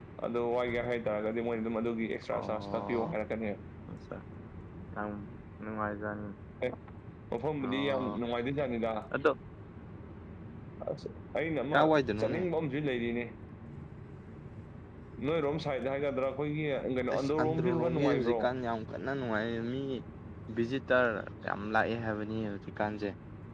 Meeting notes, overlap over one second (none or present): present